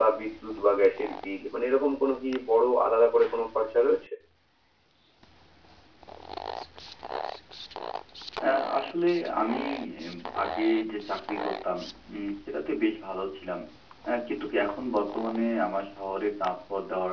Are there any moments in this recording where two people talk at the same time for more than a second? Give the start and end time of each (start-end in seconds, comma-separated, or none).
none